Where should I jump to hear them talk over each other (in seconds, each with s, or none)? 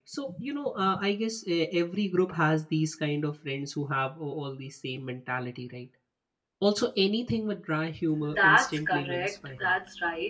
8.1 s